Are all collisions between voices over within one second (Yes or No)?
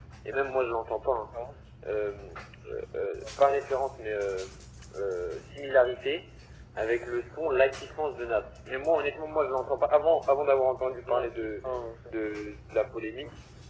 Yes